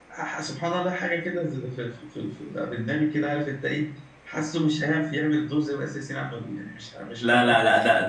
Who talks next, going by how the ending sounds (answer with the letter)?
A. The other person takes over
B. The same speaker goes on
A